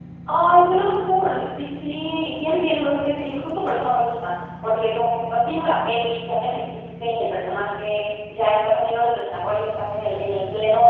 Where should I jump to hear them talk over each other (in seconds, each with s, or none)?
none